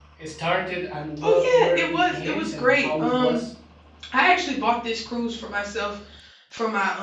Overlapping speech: Yes, from 1.2 s

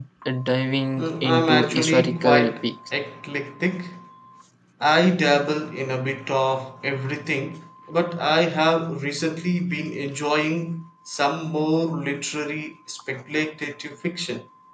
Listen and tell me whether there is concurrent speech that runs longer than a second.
Yes, from 1.0 s

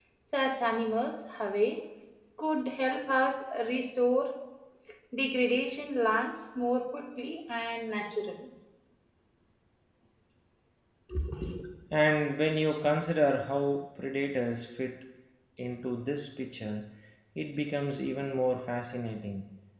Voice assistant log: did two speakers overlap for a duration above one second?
No

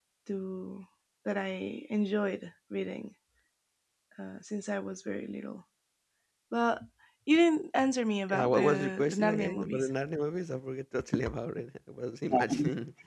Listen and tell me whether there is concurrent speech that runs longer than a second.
Yes, from 8.3 s

